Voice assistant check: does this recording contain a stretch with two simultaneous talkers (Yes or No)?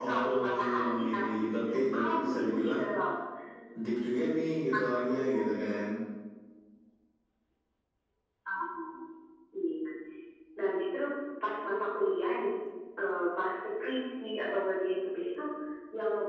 Yes